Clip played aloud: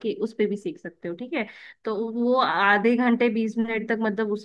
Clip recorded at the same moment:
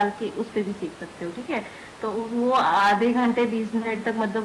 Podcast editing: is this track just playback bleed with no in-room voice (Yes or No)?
Yes